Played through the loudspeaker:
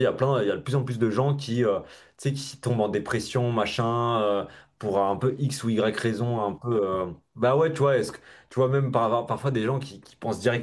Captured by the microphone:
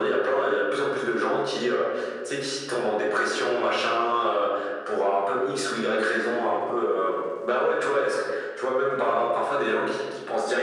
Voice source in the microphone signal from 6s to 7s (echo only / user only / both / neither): echo only